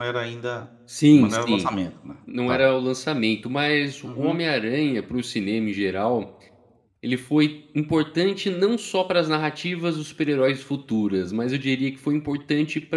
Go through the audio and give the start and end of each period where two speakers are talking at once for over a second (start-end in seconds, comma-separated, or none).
none